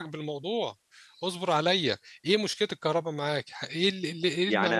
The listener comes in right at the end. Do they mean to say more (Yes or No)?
Yes